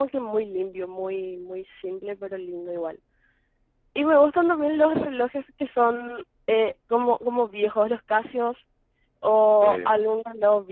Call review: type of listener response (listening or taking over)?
listening